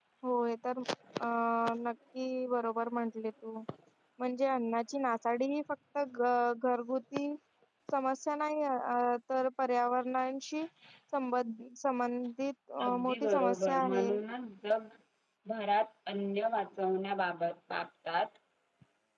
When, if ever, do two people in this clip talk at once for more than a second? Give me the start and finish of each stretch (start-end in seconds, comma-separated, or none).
12.8-14.1